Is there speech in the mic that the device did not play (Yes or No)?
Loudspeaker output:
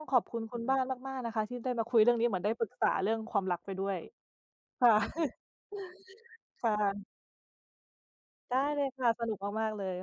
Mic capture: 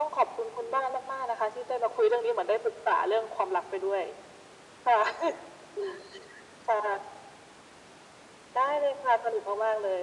No